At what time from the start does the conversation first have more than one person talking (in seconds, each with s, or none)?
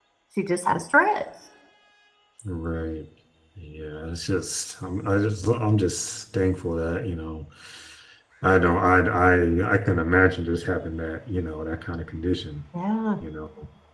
none